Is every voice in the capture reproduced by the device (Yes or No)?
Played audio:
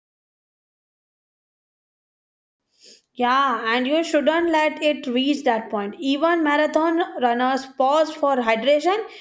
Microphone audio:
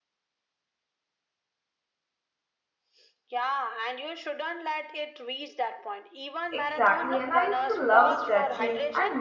No